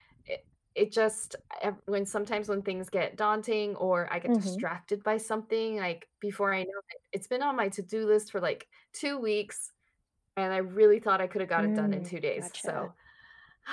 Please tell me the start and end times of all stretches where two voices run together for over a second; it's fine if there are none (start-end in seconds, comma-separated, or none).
11.6-12.9